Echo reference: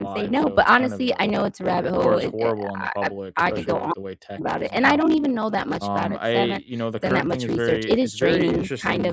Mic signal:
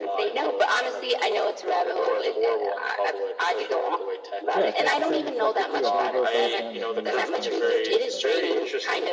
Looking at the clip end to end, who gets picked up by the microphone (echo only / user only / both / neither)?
both